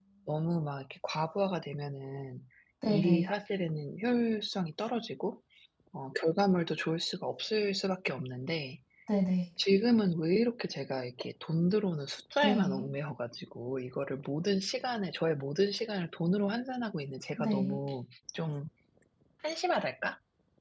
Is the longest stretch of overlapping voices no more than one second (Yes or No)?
Yes